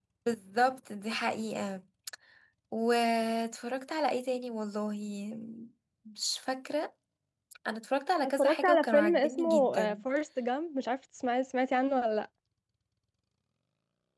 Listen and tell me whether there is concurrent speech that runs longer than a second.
Yes, from 8.2 s

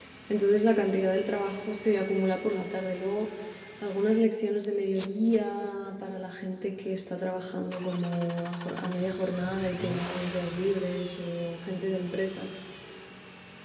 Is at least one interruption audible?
No

